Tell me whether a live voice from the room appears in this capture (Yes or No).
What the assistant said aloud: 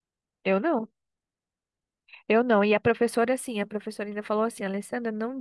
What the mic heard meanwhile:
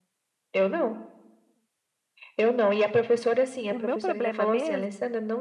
Yes